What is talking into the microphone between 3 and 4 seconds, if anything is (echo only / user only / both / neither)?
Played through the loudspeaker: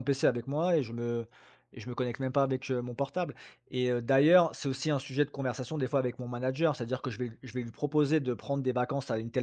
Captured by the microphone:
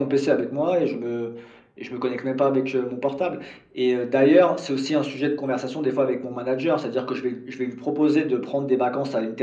echo only